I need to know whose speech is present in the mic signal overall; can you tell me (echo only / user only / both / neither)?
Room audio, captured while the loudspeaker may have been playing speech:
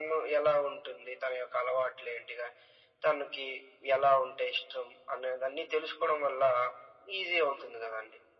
echo only